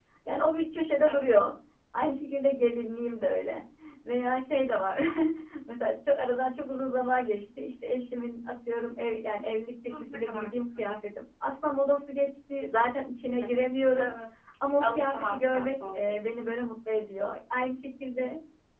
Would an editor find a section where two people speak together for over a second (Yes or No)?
Yes